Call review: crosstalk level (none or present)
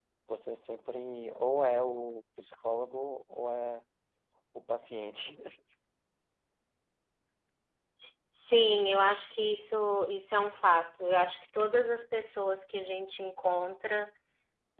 none